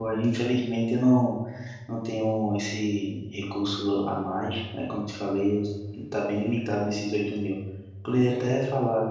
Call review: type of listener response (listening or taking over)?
listening